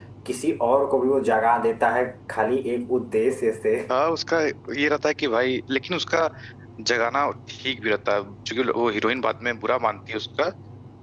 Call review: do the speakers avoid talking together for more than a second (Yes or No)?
Yes